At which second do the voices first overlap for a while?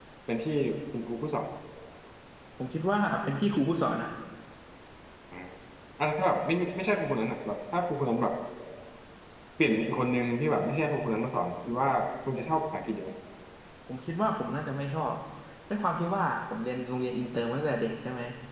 none

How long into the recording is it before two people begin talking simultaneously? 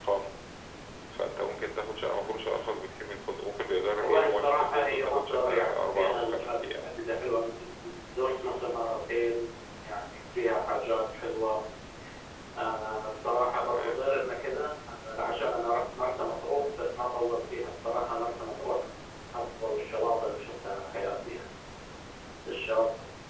4 s

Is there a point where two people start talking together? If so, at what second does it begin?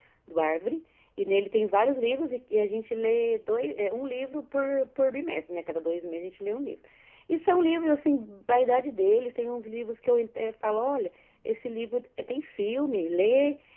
none

